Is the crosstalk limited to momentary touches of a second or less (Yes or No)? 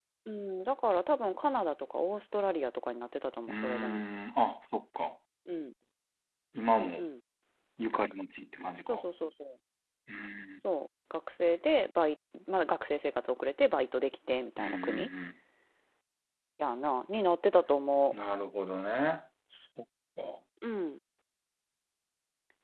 Yes